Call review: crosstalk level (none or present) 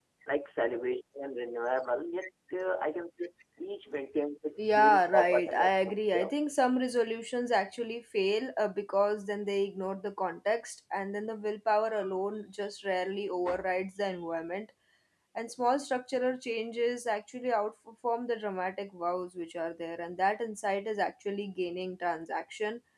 present